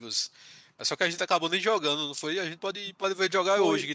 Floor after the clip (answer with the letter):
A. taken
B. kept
A